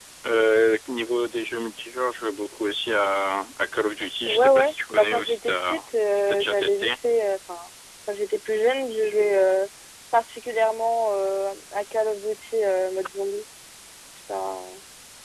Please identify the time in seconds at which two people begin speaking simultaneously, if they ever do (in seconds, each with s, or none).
4.3 s